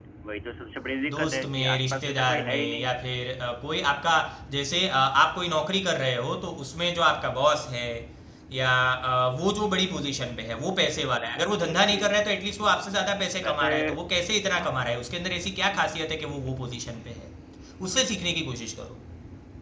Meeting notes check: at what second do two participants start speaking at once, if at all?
1.1 s

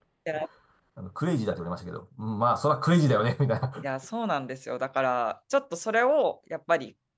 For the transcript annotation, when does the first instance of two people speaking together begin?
none

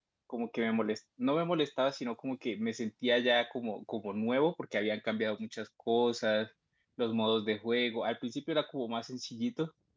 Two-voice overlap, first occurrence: none

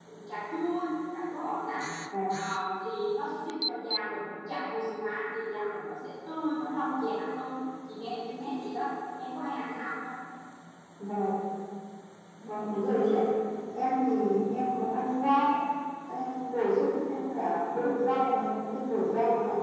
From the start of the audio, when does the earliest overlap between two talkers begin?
none

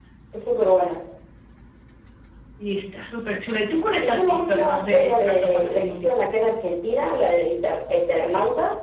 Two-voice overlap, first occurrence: 4.0 s

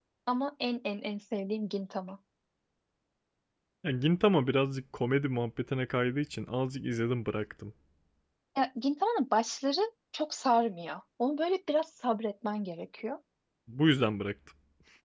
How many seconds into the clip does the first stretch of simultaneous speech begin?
none

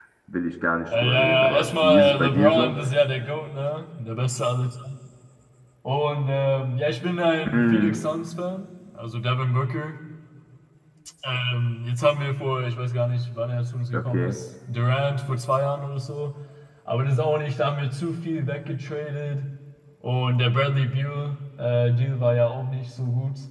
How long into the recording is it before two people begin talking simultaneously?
0.9 s

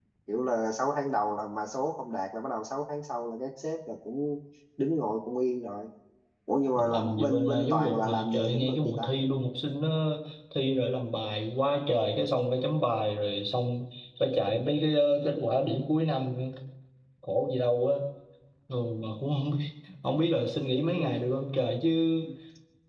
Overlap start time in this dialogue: 6.8 s

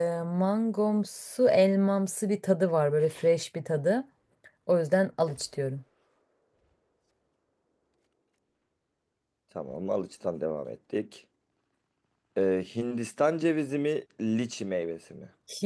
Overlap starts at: none

